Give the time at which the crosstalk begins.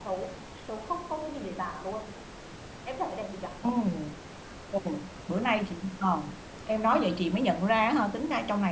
none

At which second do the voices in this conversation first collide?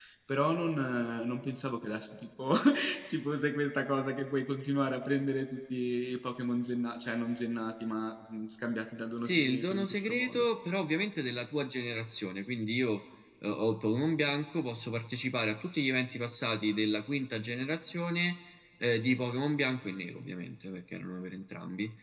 9.2 s

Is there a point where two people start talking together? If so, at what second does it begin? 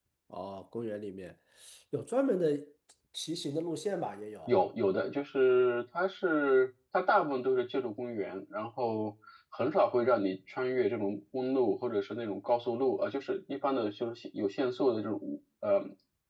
none

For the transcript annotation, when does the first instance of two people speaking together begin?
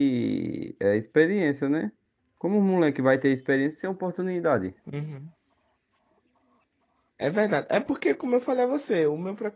none

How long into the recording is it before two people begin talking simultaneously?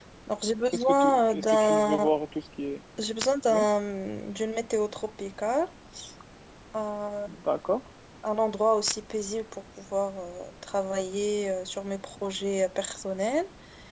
0.7 s

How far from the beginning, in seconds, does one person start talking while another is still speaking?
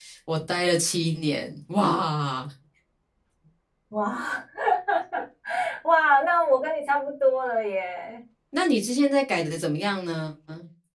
none

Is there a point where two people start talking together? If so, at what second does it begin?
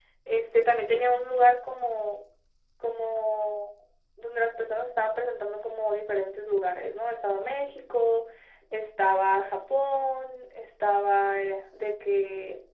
none

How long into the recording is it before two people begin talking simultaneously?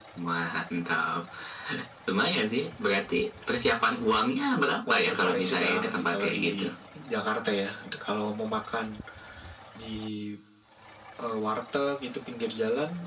4.8 s

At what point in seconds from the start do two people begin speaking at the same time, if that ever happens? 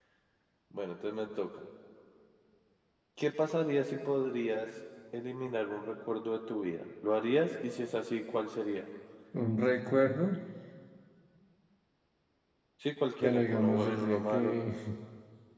13.2 s

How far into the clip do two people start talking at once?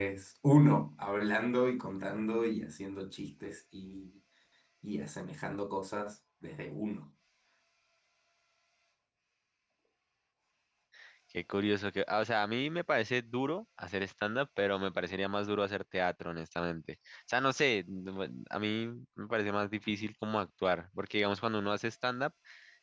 none

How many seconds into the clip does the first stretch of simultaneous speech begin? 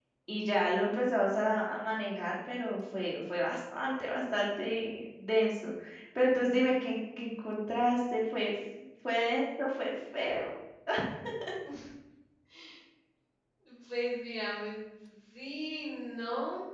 none

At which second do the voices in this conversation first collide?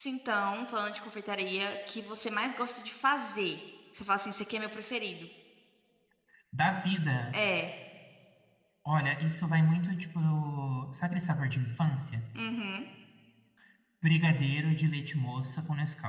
none

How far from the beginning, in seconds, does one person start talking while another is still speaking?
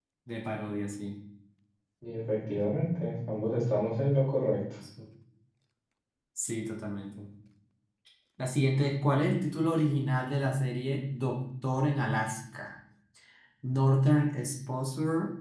none

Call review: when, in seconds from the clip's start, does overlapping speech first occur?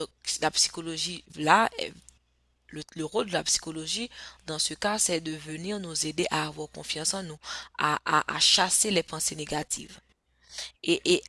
none

